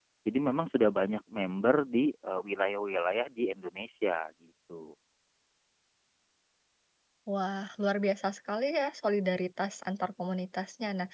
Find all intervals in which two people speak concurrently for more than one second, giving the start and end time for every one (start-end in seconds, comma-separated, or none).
none